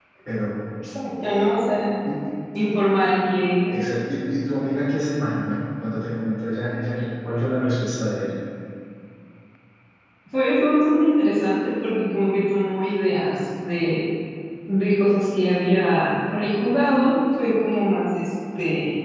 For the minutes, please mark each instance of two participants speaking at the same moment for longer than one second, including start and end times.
none

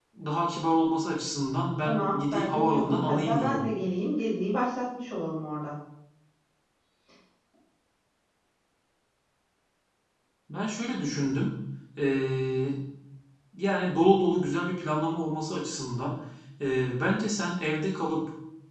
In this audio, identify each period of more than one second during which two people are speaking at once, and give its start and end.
1.8-3.6

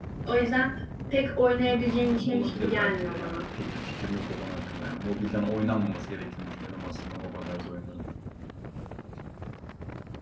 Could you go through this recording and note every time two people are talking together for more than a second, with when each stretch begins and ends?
1.6-3.4

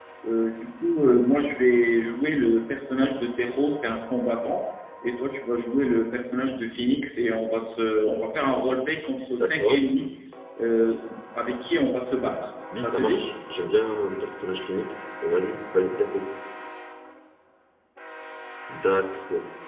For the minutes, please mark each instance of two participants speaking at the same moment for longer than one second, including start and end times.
none

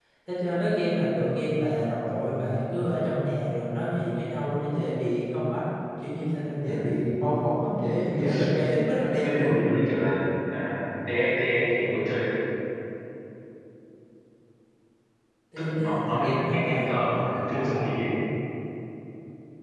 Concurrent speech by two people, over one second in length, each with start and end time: 15.6-17.9

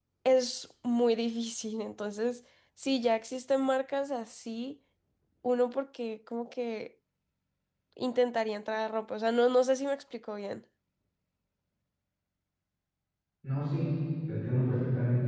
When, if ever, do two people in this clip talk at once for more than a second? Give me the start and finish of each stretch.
none

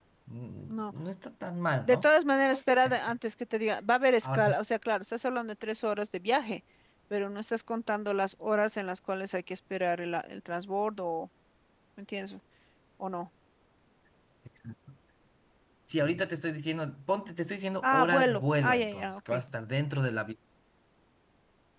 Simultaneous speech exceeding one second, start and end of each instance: 17.8-19.3

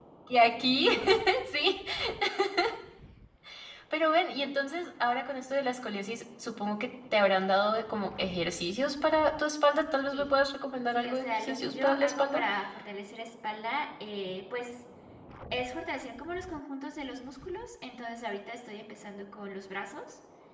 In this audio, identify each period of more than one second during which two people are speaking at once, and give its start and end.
10.9-12.4

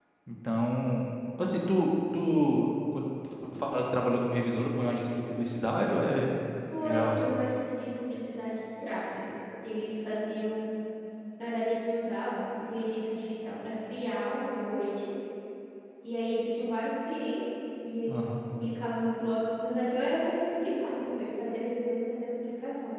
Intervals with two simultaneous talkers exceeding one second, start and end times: none

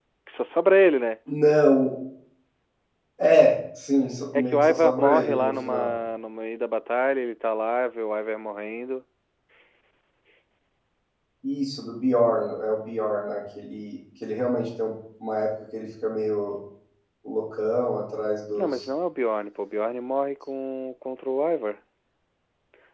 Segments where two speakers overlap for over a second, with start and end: 4.3-5.9

